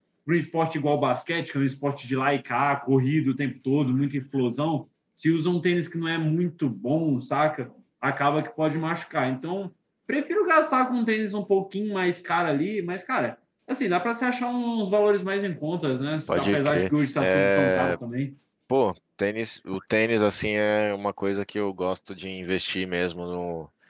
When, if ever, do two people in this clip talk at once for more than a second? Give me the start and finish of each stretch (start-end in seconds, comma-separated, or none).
16.4-18.0